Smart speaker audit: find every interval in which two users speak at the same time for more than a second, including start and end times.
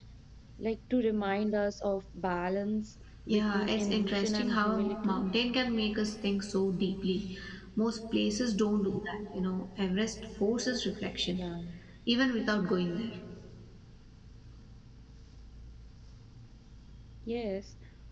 3.3-5.2

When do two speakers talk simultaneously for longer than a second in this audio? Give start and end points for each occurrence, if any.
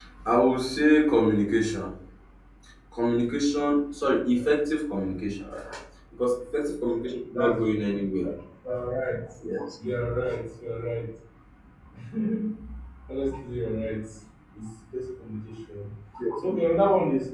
none

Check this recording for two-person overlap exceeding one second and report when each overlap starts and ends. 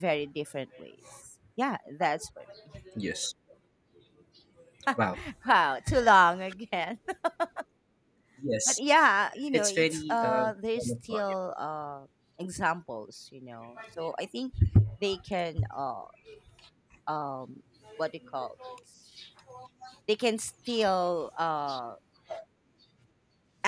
9.5-11.2

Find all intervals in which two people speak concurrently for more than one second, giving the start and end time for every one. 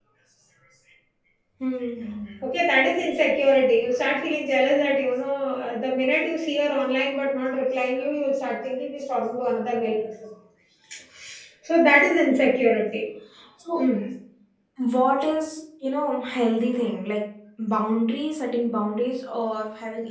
none

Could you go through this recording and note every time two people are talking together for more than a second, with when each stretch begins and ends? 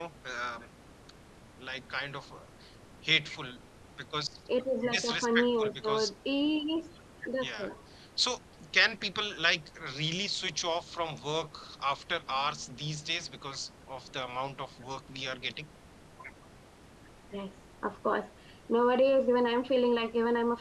4.9-6.1

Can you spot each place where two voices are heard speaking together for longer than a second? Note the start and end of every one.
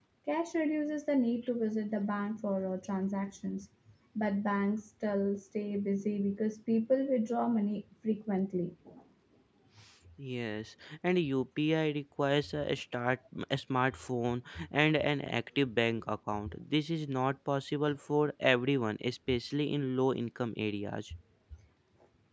none

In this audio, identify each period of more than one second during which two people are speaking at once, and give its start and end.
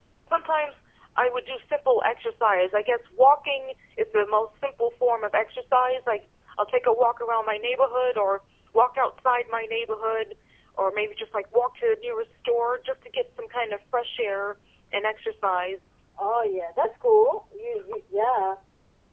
none

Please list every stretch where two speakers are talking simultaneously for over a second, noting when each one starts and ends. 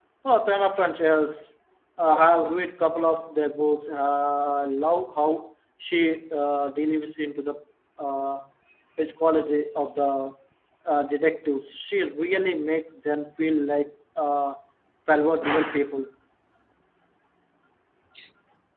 none

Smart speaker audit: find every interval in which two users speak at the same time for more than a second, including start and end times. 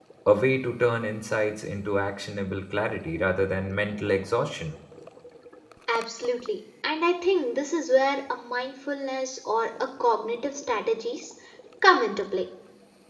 none

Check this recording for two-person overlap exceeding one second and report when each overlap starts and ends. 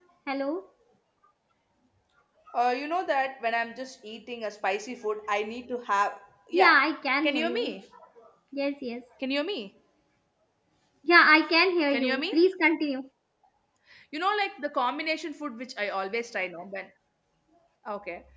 none

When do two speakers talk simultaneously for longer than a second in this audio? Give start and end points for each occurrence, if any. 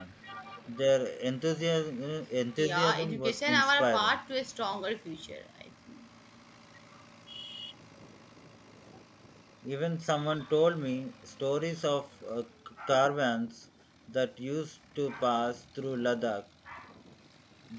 2.6-4.2

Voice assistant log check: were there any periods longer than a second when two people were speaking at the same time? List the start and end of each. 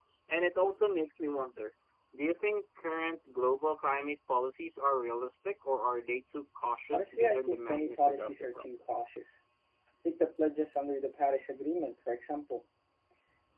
6.9-8.7

